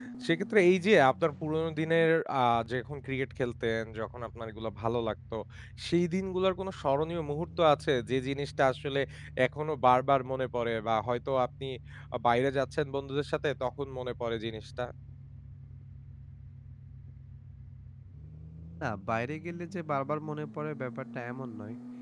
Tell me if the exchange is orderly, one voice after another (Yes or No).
Yes